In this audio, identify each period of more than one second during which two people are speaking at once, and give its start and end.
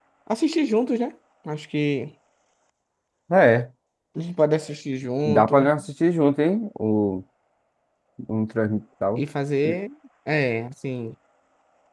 none

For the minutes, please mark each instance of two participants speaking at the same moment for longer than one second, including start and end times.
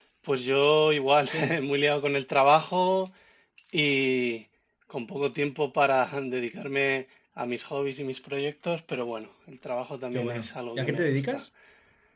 10.1-11.4

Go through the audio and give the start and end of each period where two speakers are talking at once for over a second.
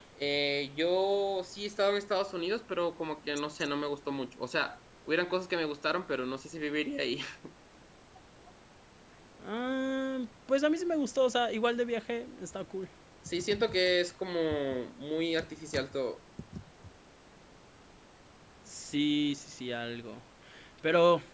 none

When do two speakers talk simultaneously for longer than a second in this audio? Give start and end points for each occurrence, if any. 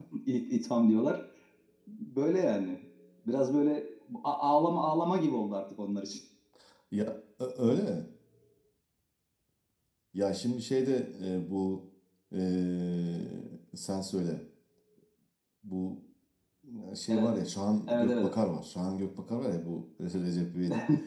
none

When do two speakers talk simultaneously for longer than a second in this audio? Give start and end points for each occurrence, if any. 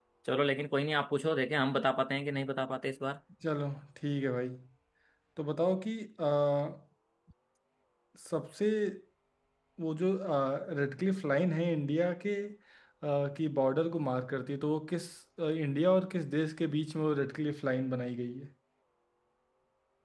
none

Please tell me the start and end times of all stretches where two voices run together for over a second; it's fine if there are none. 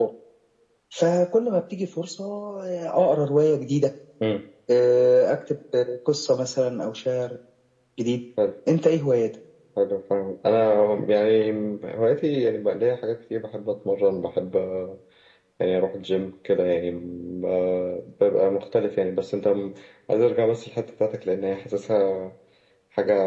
none

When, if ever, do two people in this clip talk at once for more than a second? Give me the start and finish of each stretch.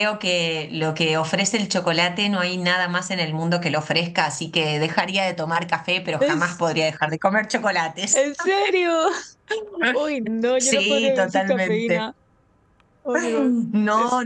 10.7-12.0

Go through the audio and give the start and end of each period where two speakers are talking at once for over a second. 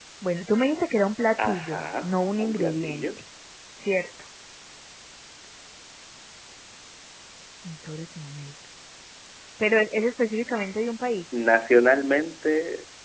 1.4-3.0

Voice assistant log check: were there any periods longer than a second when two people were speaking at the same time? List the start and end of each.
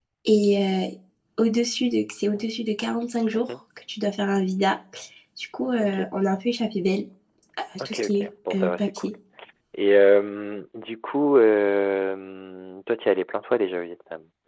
7.8-9.1

